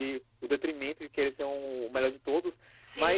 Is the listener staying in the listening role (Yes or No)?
Yes